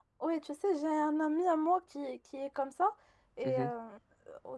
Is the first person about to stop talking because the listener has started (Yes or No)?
No